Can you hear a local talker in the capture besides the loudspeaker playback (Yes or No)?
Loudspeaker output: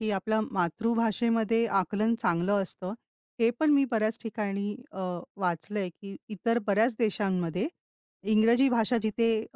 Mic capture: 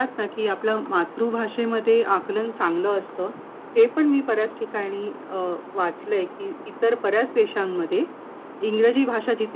No